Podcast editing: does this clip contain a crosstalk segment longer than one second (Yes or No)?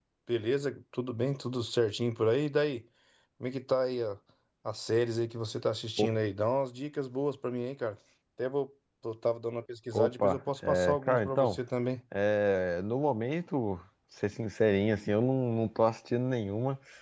Yes